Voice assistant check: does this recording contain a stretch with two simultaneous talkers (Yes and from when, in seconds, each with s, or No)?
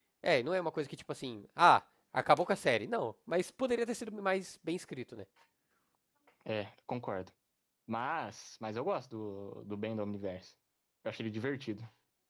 No